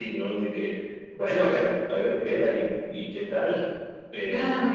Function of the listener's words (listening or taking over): taking over